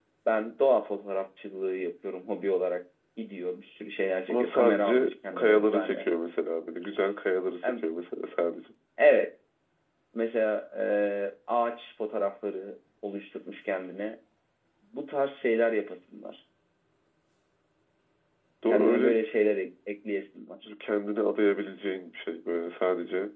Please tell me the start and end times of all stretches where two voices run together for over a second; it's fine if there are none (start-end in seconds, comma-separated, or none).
4.3-6.1